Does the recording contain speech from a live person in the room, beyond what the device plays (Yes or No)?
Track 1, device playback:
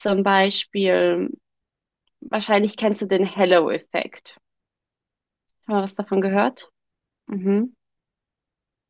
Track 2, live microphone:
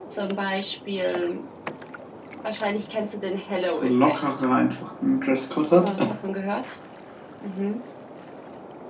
Yes